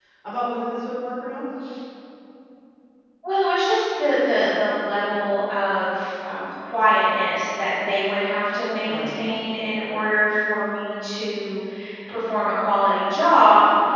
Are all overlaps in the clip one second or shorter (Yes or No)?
Yes